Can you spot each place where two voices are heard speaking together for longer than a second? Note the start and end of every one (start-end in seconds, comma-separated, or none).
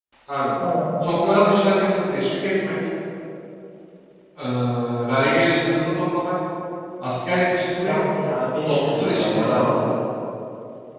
8.6-9.8